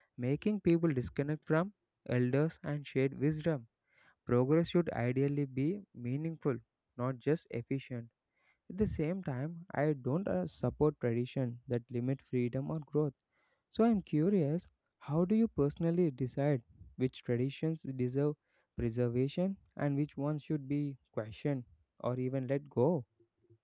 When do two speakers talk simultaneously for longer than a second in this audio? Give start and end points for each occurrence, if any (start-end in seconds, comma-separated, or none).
none